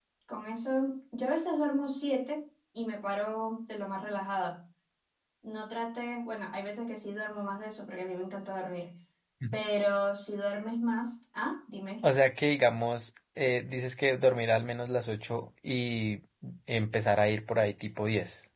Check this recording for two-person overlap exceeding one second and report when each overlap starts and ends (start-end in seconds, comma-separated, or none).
none